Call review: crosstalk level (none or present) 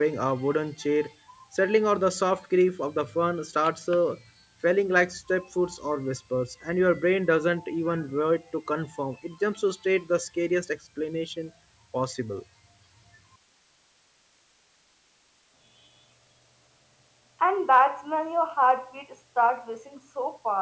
none